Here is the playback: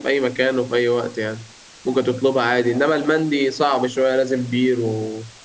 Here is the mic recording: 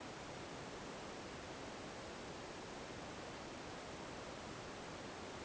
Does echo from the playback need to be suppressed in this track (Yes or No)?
No